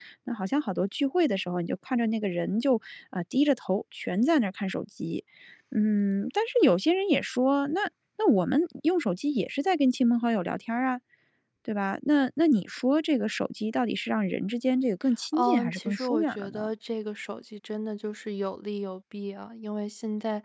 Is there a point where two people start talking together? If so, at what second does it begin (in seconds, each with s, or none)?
15.3 s